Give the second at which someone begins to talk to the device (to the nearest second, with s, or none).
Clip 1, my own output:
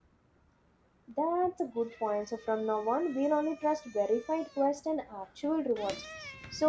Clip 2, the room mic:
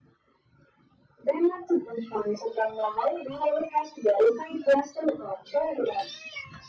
none